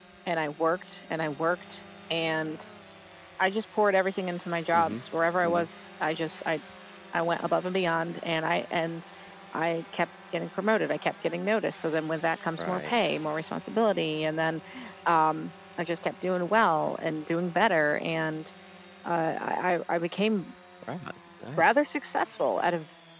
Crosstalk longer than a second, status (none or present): none